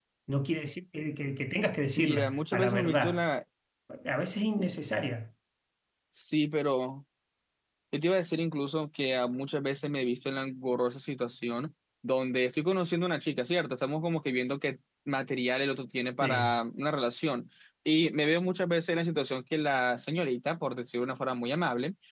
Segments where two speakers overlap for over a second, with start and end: 2.0-3.2

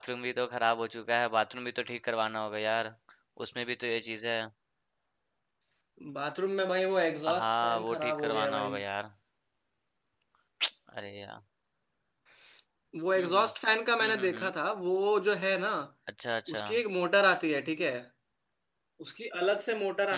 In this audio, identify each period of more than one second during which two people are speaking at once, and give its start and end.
7.3-8.8

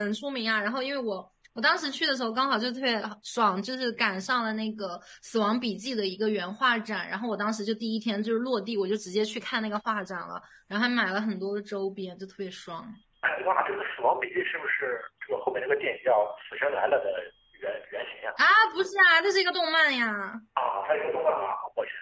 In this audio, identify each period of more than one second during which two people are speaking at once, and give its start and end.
none

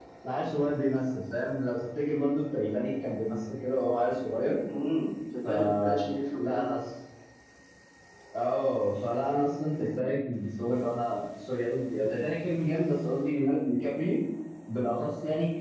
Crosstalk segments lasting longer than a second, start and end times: 5.4-6.7

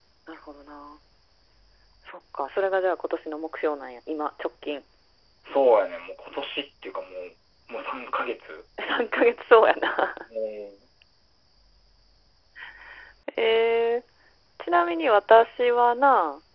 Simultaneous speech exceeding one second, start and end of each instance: none

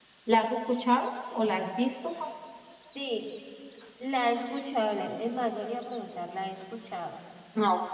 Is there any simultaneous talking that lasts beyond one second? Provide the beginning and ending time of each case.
none

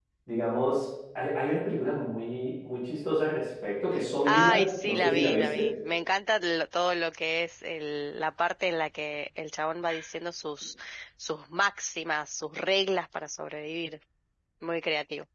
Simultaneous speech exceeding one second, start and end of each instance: 4.3-5.7

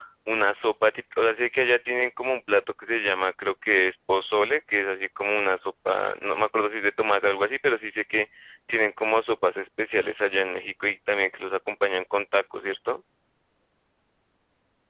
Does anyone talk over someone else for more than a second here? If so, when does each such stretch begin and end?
none

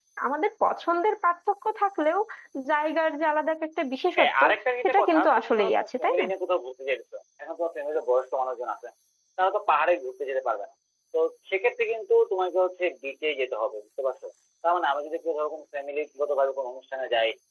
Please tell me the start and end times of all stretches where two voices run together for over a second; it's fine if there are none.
4.8-6.2

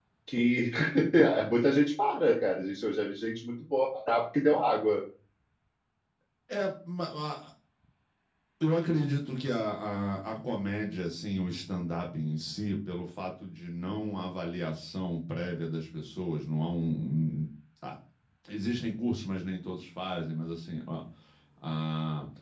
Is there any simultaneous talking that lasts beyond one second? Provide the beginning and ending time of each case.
none

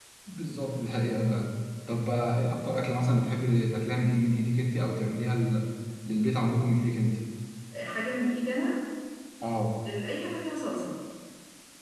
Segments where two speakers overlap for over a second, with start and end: none

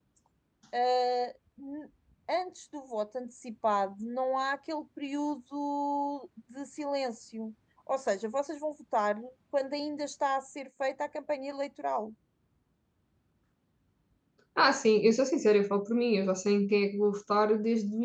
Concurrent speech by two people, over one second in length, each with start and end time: none

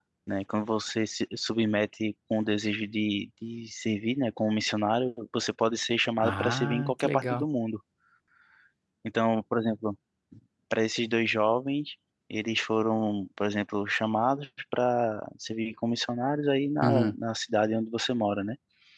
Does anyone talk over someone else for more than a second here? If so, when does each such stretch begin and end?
6.2-7.4

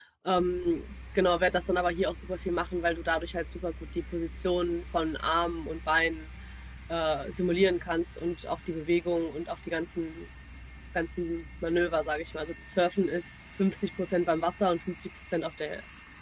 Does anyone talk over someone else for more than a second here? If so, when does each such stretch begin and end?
none

